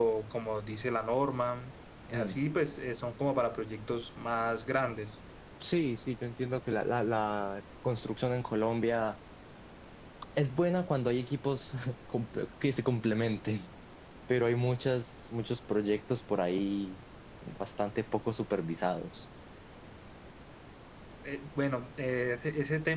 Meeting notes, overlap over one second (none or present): none